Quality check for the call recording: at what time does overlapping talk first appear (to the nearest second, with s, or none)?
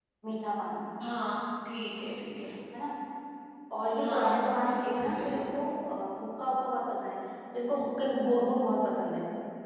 4 s